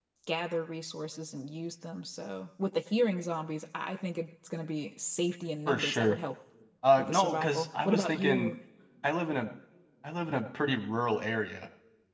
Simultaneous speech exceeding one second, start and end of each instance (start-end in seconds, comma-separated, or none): 7.0-8.5